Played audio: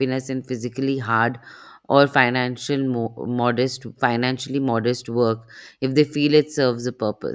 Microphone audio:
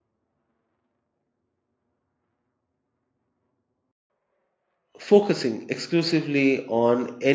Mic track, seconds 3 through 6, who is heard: user only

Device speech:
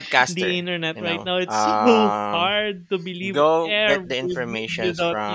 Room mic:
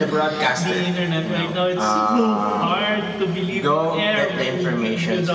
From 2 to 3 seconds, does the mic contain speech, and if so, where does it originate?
echo only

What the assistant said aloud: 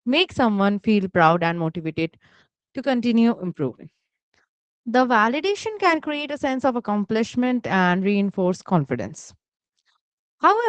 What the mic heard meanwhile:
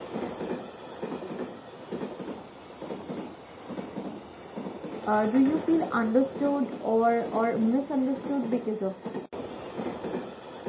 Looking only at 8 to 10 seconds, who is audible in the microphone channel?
user only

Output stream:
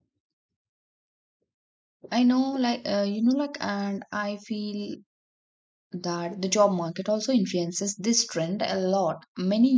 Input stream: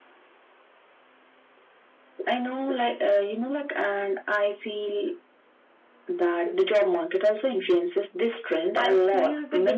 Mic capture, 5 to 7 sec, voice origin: echo only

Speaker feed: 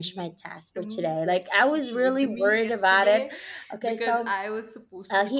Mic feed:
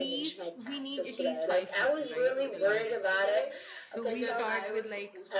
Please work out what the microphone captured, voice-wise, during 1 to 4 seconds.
both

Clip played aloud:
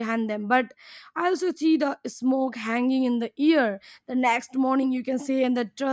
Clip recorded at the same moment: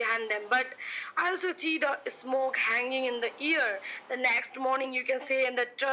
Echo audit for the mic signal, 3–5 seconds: echo only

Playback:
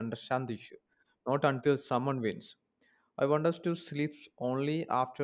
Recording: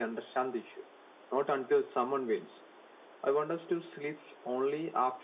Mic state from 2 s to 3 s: echo only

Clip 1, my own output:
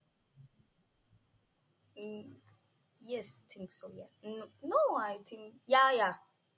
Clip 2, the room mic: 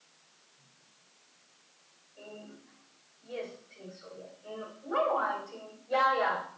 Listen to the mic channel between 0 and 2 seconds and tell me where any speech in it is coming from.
neither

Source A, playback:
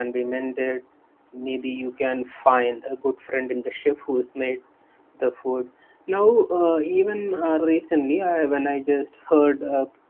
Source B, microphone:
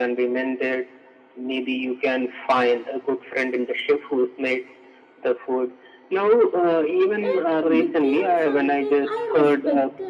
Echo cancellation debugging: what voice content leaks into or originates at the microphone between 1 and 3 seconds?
echo only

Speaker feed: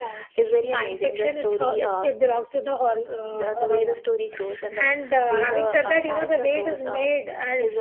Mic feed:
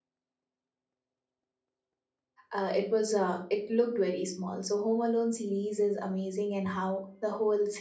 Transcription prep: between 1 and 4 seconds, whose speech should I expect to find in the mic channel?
user only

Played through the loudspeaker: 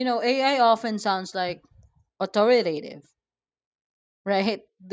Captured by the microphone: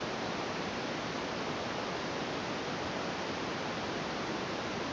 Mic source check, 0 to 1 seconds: neither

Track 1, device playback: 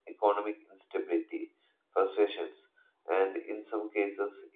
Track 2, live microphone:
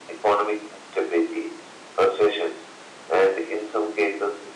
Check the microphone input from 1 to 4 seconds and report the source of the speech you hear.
echo only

